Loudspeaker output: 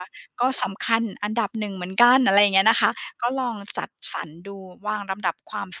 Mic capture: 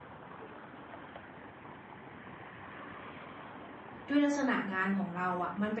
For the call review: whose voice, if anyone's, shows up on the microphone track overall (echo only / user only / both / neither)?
user only